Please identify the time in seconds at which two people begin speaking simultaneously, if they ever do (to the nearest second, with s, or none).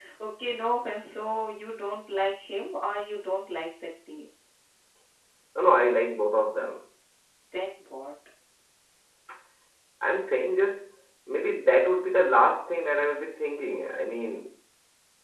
none